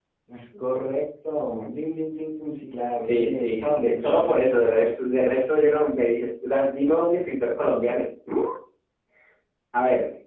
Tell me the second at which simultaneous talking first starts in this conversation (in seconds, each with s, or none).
2.9 s